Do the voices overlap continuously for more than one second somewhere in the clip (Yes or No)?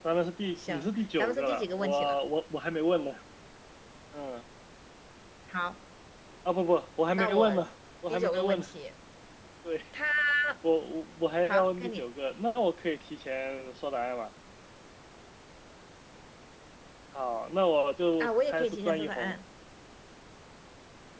Yes